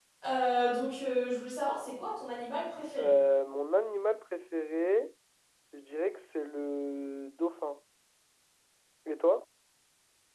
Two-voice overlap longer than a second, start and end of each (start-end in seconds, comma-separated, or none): none